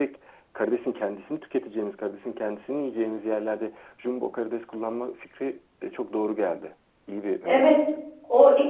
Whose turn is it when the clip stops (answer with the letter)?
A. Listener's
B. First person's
A